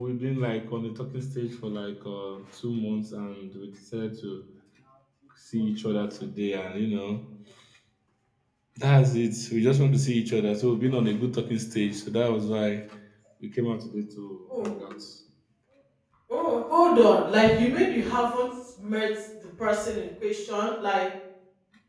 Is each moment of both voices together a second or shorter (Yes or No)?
Yes